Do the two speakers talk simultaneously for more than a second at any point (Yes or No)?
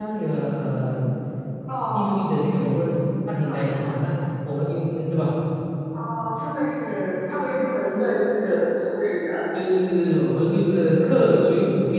No